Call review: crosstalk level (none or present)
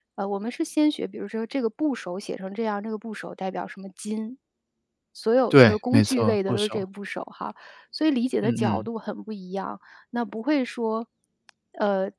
present